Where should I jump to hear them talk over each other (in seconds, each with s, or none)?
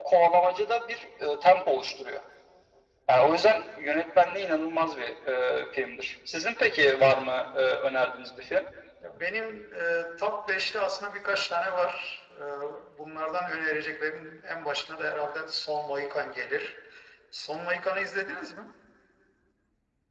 none